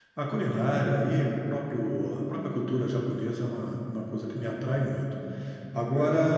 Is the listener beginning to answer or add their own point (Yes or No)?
No